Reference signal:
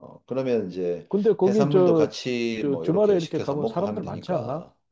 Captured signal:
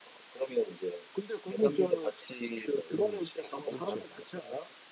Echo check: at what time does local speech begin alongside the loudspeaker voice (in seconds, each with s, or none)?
2.9 s